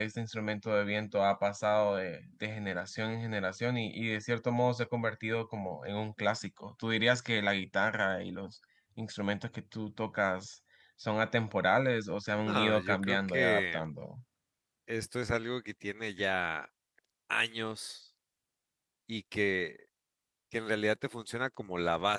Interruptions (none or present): present